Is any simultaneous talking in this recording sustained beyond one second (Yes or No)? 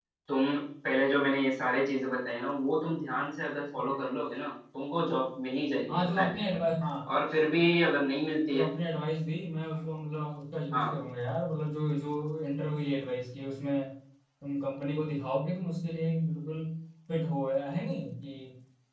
No